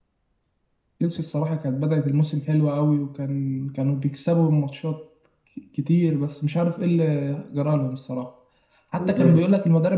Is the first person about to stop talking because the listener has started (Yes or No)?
No